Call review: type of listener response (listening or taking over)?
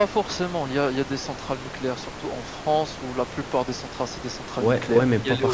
taking over